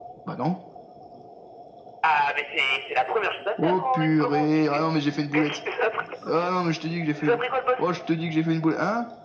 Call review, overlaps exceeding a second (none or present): present